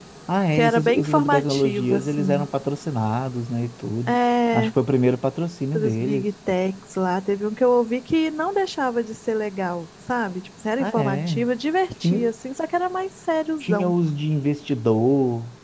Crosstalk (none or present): present